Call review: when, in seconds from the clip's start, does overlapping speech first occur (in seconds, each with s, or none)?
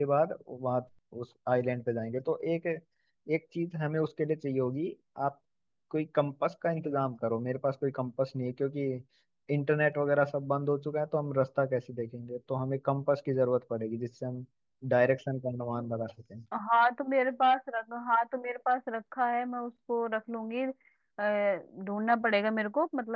none